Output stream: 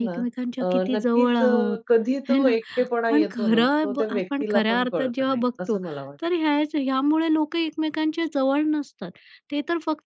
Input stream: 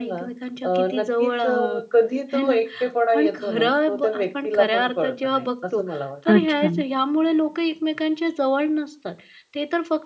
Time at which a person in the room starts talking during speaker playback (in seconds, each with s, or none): 6.3 s